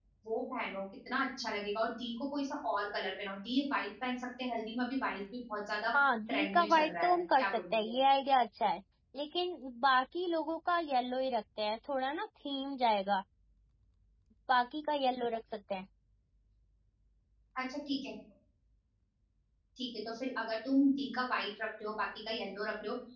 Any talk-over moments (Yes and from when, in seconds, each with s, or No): Yes, from 6.3 s